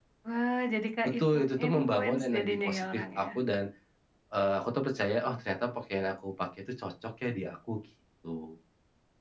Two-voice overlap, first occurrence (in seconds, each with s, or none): 1.0 s